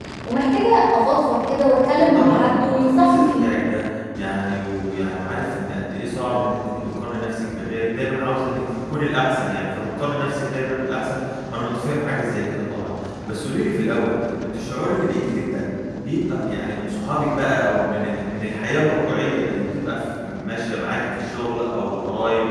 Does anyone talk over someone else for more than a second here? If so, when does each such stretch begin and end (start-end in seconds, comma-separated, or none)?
2.0-3.5